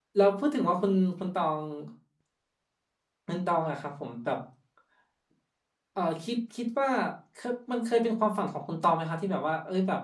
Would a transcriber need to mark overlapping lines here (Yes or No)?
No